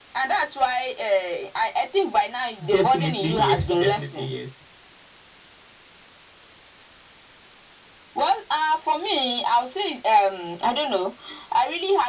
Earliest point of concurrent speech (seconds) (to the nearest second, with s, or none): 3 s